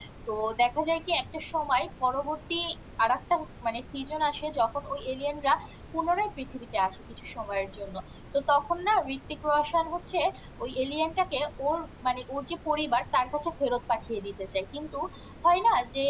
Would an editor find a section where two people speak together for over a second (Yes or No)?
No